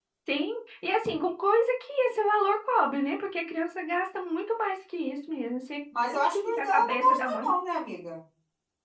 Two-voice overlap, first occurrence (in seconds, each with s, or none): 5.9 s